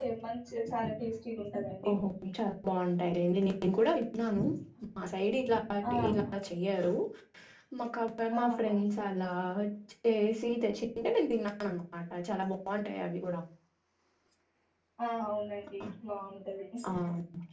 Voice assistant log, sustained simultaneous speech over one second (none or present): none